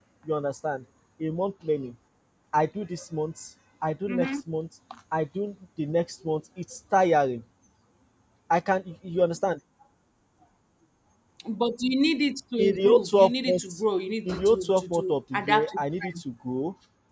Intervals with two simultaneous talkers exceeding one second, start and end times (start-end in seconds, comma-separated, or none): 12.6-13.8, 14.2-16.2